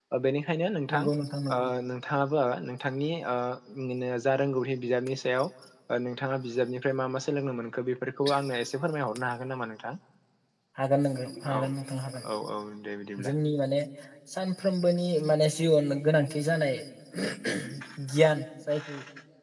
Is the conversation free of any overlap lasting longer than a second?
Yes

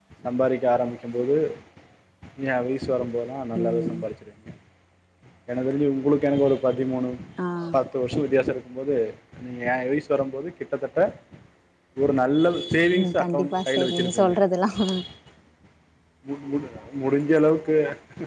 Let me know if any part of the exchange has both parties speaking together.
Yes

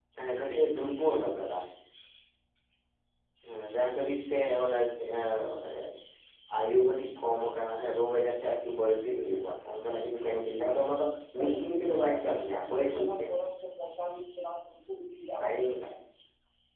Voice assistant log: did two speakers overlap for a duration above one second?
Yes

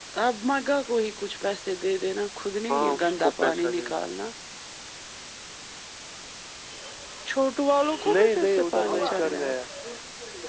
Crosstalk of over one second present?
Yes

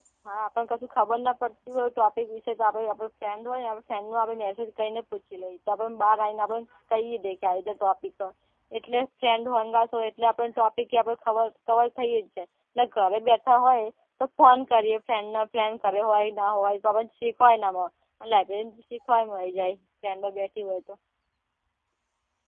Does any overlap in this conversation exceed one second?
No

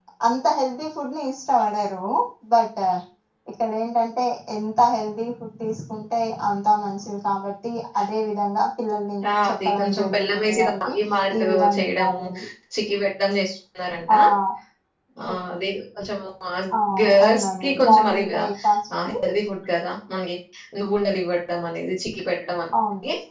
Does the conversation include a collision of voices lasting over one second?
Yes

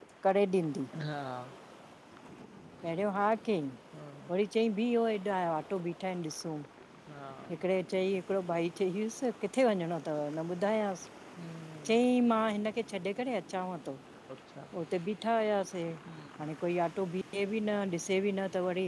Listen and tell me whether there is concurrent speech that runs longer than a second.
No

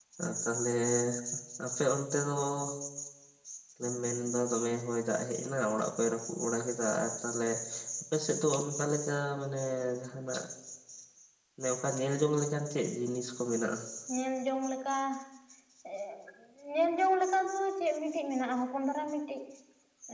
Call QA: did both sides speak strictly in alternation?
Yes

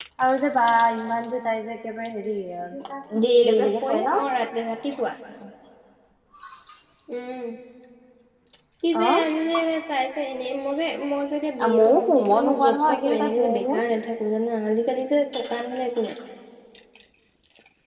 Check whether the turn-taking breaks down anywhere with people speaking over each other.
Yes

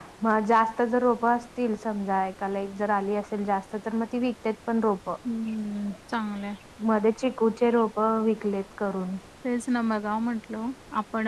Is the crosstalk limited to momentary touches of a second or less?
Yes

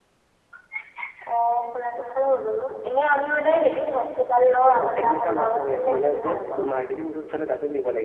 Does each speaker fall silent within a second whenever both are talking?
No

